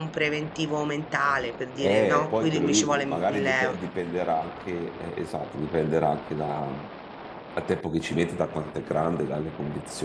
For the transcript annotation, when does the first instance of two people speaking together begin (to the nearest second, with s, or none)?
2 s